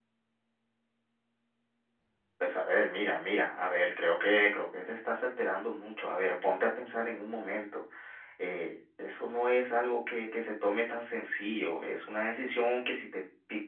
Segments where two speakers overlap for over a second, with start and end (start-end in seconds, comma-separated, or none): none